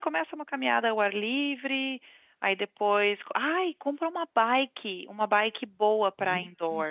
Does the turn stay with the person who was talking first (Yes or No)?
Yes